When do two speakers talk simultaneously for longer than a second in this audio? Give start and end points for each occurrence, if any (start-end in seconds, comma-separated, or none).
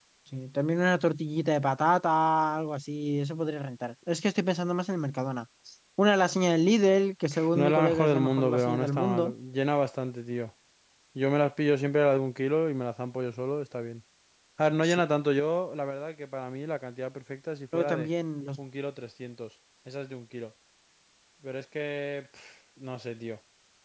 7.5-9.3